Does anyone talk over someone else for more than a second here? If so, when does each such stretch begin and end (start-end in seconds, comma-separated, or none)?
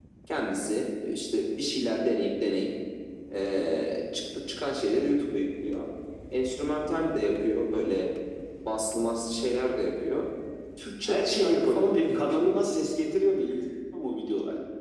11.1-12.5